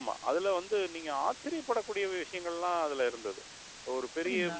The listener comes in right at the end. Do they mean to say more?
No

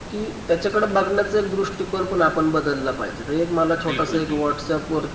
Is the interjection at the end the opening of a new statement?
No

